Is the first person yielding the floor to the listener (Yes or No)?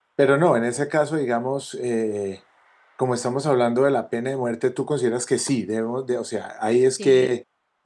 Yes